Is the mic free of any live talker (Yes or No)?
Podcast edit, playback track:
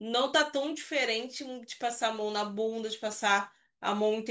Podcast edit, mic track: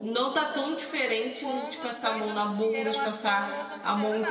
No